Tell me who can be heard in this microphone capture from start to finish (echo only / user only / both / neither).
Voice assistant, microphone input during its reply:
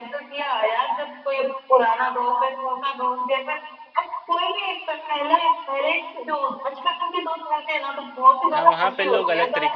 both